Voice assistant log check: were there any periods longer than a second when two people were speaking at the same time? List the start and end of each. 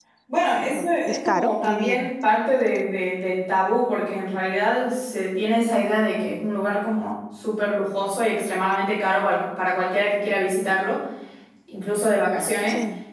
0.7-2.1

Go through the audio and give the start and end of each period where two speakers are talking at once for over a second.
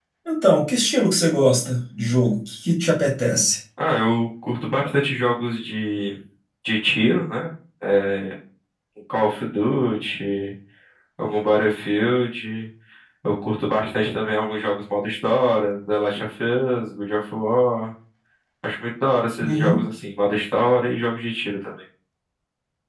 none

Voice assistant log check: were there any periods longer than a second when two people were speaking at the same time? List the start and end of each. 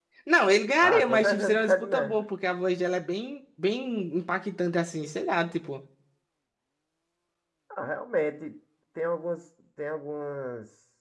0.8-2.2

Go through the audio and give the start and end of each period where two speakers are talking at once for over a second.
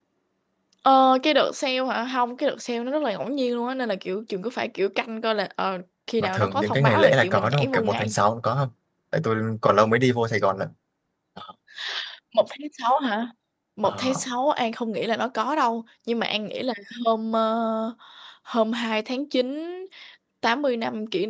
6.2-8.2

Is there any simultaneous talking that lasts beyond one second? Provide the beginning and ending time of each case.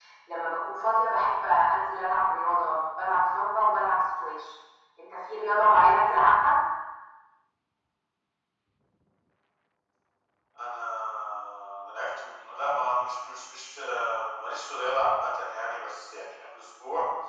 none

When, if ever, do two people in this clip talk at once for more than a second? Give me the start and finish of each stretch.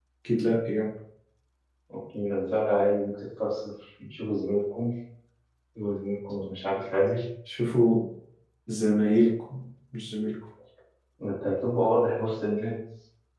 none

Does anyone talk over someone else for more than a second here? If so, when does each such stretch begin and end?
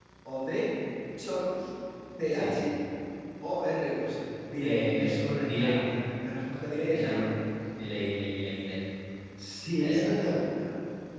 4.6-5.8

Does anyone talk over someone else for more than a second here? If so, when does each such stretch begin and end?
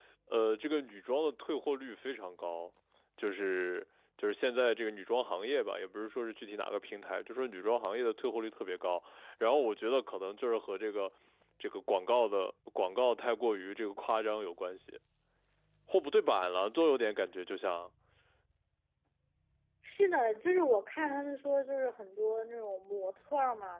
none

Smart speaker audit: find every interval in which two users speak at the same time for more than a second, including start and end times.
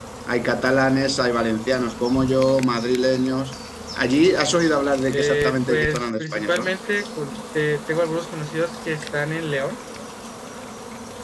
5.1-6.7

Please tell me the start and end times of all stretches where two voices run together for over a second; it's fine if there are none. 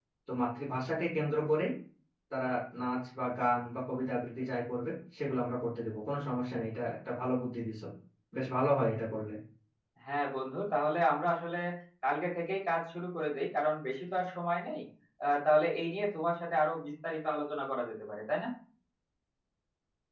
none

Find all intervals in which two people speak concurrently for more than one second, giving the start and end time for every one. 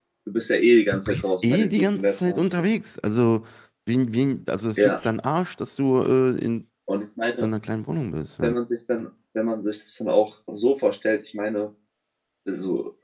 0.9-2.5

